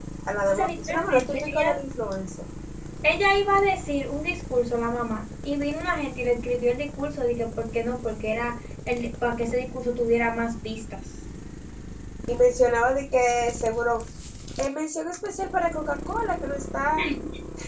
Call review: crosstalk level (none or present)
present